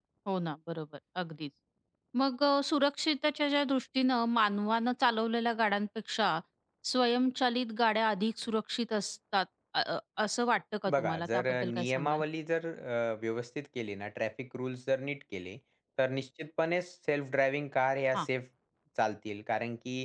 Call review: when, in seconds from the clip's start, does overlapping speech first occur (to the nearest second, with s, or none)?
11 s